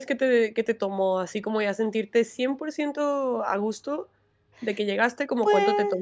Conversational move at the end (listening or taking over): taking over